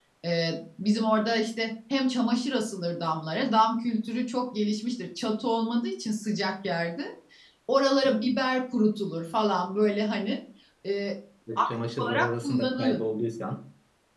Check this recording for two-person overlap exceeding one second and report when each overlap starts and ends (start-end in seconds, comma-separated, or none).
11.6-13.0